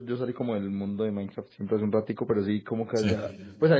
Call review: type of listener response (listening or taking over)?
listening